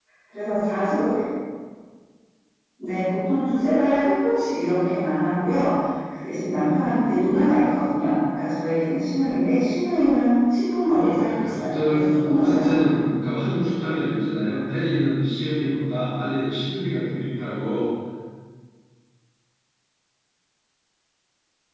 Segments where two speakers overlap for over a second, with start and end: 10.9-13.0

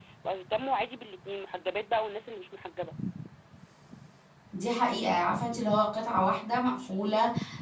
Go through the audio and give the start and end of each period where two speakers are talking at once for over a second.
none

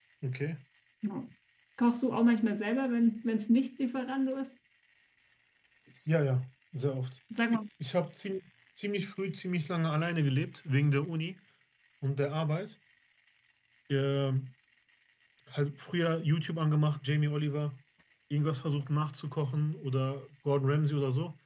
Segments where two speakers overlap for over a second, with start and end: none

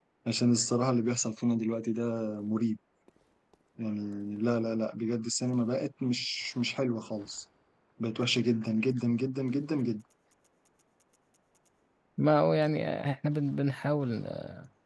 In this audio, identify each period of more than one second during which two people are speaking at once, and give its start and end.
none

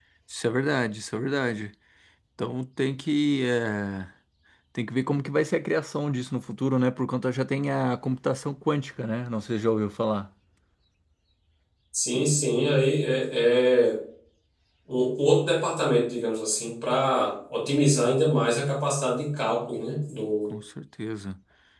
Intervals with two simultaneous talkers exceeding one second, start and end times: none

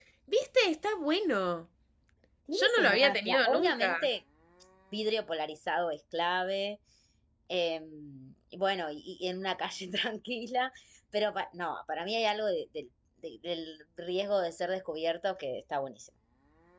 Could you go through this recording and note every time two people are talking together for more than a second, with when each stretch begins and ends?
2.5-3.9

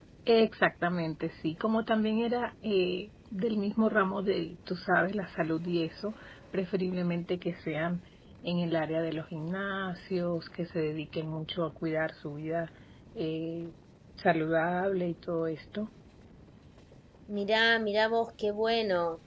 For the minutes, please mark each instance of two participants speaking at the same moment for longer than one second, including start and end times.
none

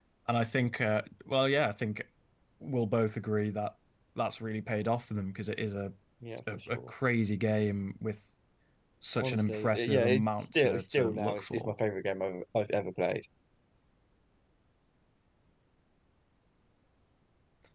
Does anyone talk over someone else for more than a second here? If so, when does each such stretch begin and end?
9.2-11.7

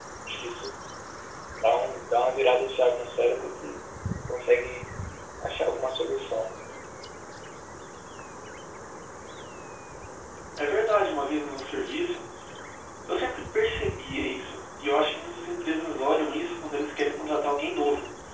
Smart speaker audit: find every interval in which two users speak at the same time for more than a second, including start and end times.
none

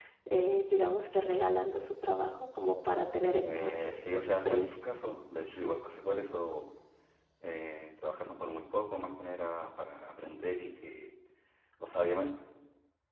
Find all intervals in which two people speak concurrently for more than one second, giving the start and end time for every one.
3.4-4.8

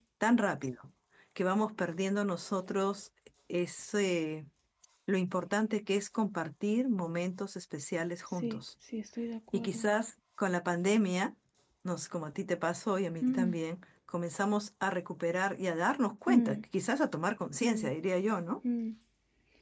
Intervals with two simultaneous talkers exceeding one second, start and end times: none

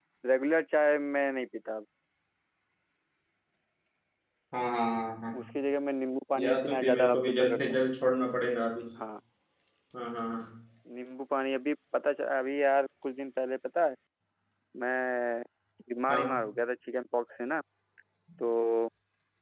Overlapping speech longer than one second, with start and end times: 6.4-7.6

